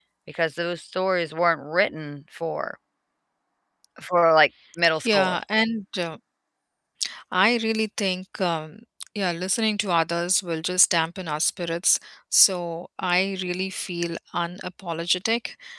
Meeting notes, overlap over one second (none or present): none